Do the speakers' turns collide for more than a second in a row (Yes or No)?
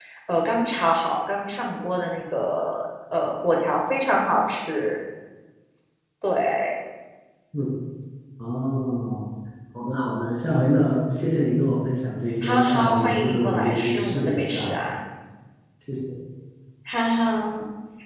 Yes